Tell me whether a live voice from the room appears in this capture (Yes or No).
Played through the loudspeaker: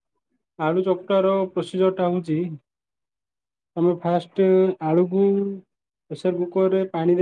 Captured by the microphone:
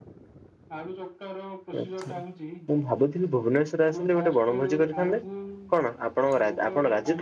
Yes